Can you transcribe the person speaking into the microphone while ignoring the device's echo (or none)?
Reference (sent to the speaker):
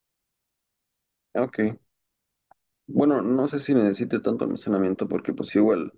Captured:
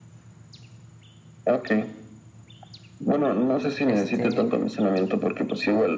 Este,